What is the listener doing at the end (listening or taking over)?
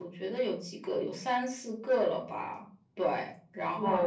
taking over